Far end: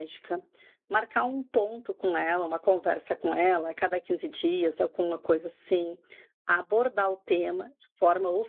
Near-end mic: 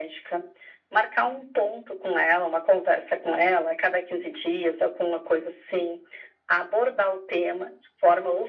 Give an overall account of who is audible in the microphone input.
echo only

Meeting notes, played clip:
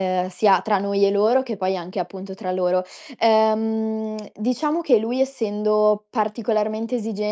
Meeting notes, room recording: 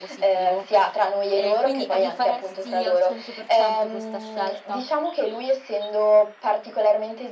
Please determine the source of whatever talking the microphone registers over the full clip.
both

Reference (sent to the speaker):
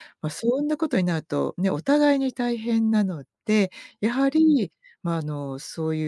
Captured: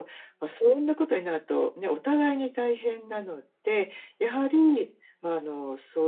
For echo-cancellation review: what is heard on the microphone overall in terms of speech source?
echo only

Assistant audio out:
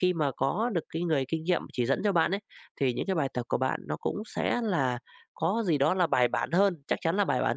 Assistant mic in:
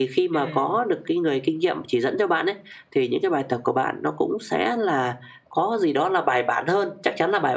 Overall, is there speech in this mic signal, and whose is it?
both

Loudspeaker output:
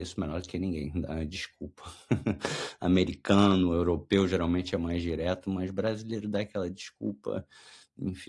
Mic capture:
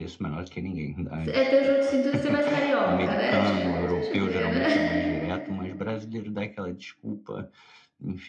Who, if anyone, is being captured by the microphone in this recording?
both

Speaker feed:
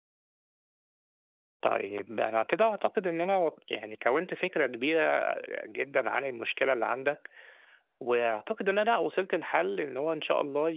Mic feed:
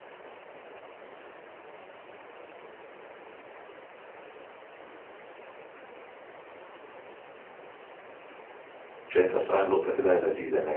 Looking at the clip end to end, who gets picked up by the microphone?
user only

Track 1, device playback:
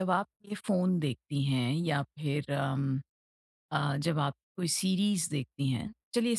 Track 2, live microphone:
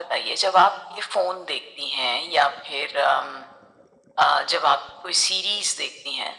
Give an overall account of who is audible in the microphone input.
echo only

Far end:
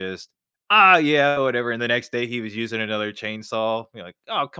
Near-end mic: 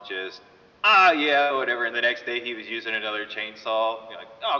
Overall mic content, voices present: echo only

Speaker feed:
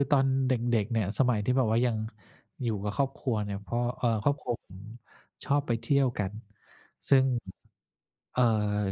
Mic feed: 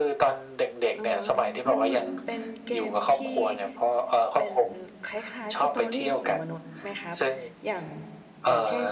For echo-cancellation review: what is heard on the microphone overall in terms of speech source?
both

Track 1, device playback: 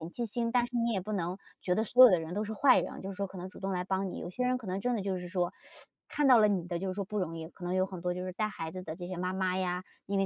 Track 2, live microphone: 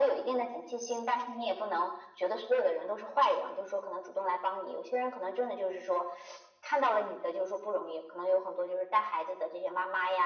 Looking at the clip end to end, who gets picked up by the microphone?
echo only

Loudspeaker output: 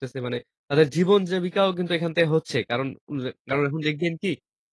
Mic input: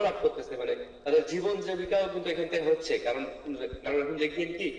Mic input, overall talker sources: echo only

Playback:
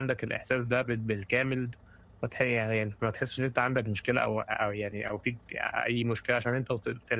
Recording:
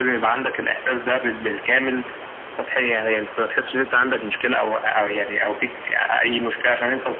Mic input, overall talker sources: echo only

